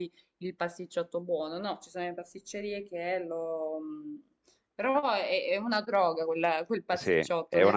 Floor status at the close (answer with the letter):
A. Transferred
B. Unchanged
A